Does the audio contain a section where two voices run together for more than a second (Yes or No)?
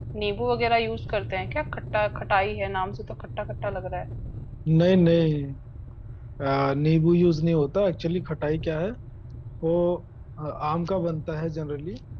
No